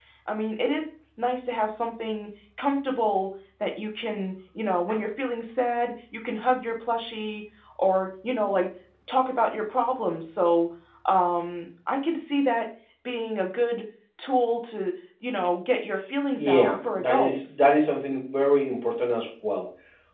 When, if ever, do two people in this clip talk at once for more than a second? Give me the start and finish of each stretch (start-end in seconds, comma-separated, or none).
16.3-17.6